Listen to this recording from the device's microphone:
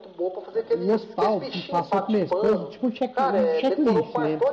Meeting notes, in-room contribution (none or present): present